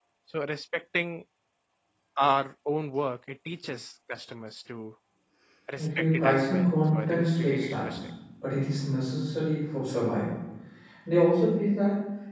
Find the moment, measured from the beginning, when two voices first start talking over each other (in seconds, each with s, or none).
5.8 s